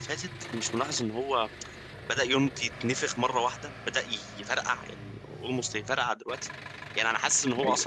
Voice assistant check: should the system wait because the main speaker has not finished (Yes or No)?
Yes